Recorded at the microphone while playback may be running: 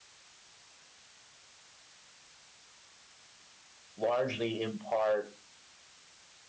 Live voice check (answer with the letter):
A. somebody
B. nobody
A